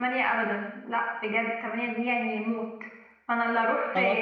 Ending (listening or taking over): listening